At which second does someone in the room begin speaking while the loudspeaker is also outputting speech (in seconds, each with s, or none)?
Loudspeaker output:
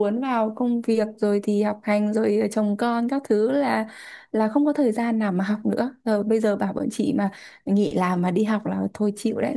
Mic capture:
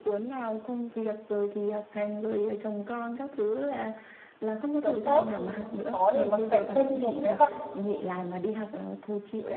4.8 s